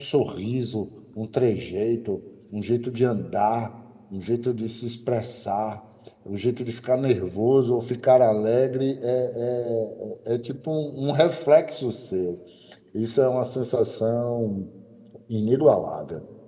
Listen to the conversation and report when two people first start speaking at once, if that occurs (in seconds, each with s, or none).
none